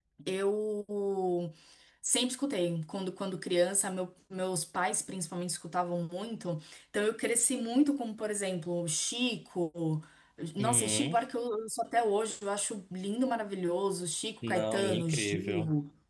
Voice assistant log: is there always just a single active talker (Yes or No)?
No